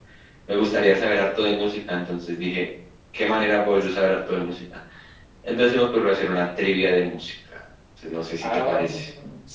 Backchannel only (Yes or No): No